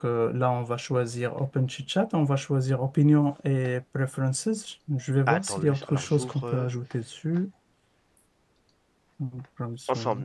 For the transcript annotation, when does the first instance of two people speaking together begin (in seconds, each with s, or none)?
5.3 s